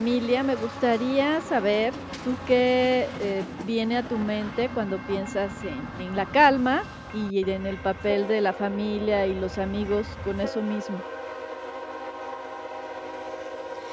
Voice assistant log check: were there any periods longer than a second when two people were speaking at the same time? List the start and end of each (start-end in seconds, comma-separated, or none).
none